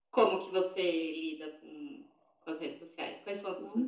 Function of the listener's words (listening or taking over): taking over